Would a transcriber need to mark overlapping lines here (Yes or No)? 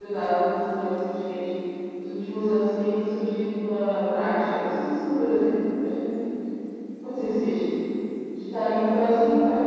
No